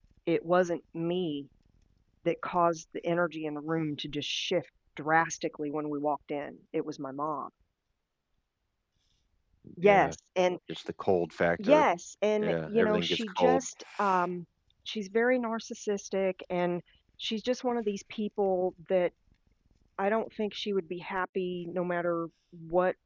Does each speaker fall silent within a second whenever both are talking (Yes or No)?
No